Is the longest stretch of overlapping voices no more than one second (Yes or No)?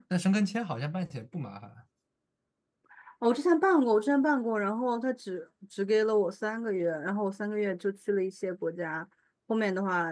Yes